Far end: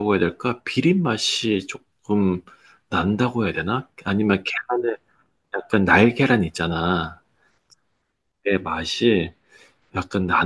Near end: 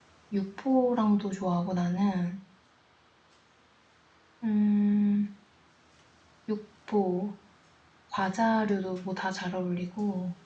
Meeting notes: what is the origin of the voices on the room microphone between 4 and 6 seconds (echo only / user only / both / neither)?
user only